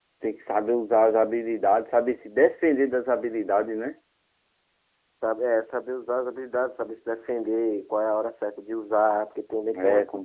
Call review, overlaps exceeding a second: none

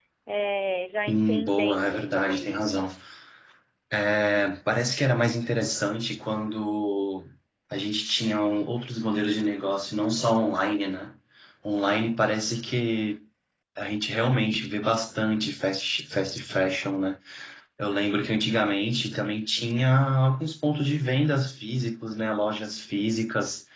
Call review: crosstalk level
present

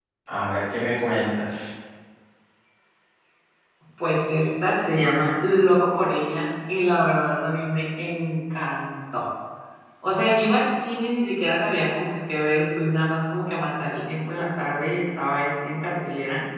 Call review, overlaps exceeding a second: none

